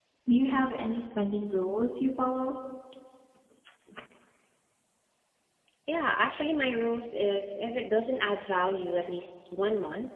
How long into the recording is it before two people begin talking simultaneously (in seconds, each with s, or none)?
none